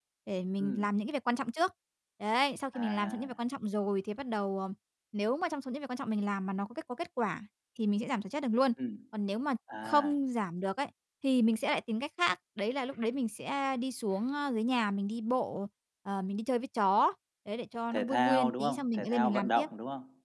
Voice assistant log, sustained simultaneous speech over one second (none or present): present